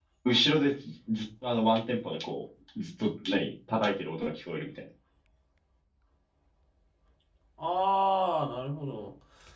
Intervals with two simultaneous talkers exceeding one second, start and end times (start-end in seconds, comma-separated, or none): none